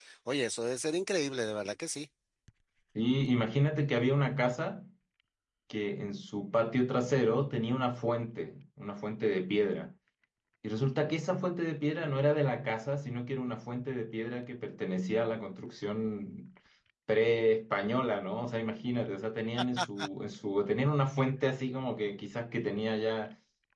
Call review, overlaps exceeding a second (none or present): none